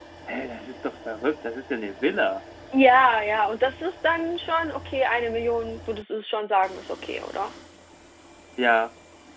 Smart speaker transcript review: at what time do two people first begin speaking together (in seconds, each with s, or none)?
none